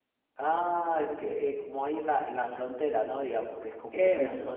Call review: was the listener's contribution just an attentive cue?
Yes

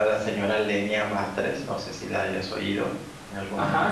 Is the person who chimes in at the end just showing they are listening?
No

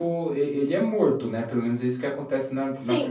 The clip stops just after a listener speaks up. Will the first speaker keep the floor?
No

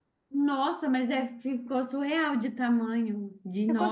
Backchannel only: No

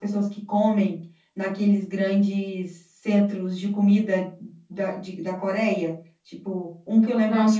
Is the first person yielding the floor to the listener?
Yes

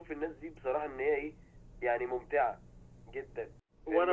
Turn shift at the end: Yes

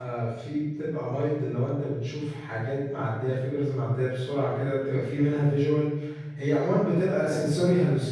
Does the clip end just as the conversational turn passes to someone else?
No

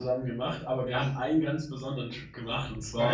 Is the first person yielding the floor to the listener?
Yes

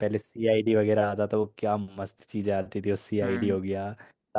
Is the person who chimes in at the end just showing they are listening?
Yes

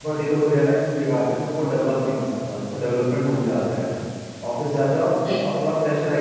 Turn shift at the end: No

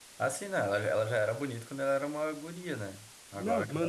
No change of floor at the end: No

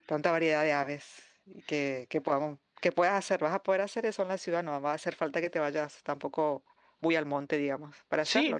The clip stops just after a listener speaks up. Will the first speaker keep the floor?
No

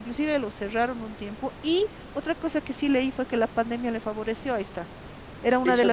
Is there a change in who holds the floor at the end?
Yes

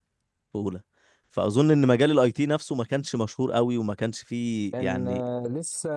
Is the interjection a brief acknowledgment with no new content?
No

